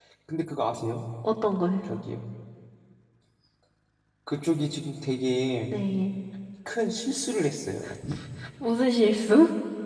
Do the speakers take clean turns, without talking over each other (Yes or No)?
Yes